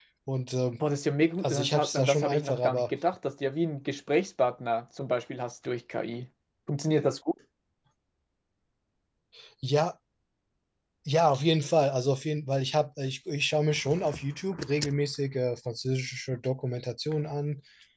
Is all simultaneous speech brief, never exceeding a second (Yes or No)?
No